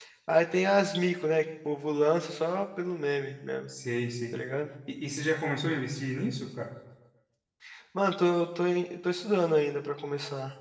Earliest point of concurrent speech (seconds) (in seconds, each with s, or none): none